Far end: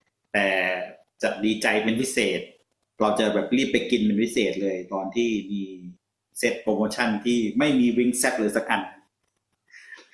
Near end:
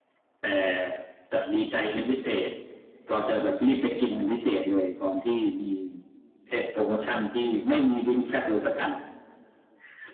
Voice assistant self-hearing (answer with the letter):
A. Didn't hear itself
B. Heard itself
B